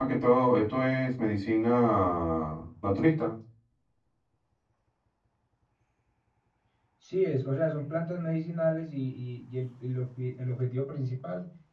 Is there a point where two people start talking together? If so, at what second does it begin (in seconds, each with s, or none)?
none